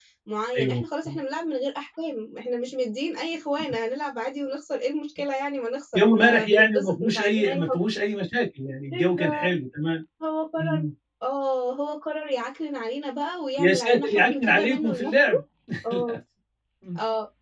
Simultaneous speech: Yes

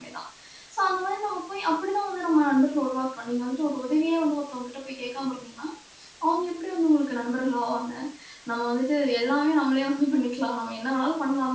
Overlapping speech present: No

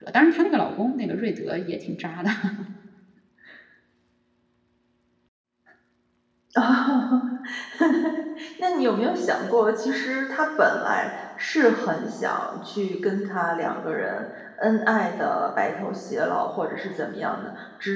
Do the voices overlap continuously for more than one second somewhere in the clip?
No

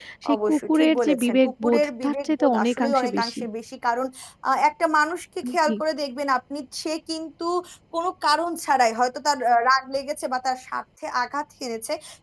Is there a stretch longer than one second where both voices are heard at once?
Yes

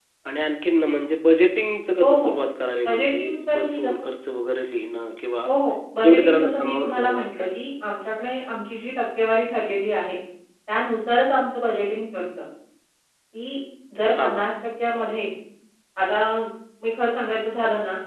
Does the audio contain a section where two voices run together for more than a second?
Yes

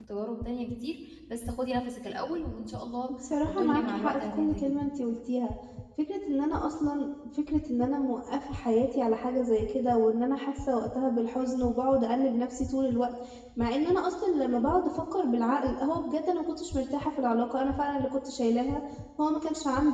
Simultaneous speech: Yes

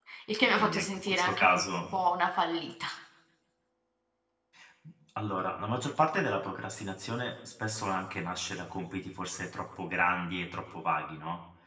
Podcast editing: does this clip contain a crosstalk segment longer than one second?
Yes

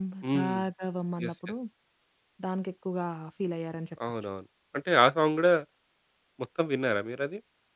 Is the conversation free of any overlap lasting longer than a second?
Yes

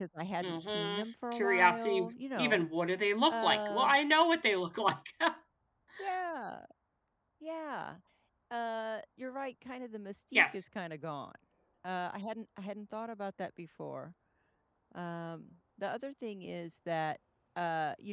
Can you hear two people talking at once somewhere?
Yes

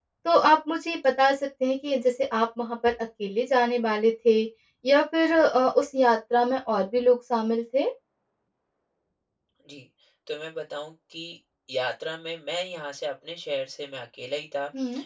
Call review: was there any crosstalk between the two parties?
No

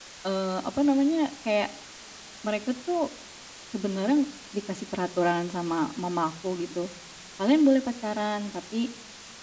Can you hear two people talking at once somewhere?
No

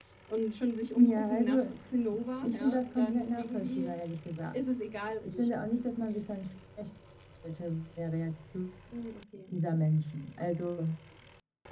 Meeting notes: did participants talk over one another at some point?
Yes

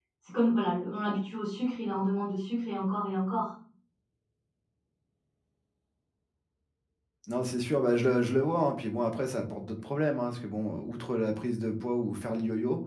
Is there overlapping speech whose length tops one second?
No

